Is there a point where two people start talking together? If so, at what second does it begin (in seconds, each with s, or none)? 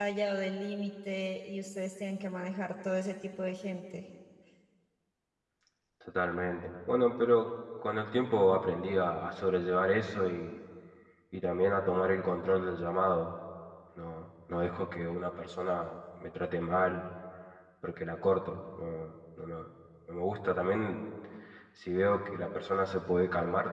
none